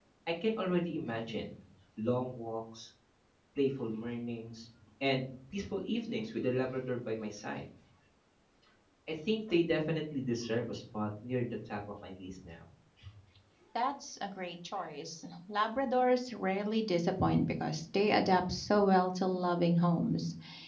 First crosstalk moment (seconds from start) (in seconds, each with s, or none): none